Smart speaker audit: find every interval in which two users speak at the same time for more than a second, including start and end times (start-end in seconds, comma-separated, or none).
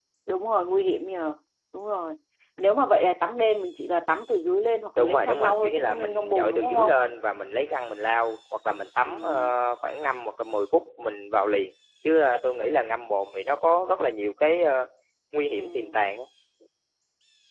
5.0-6.9